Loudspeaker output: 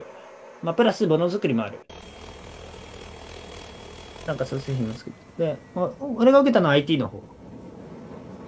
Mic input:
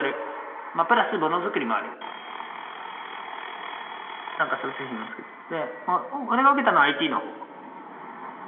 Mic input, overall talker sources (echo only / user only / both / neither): echo only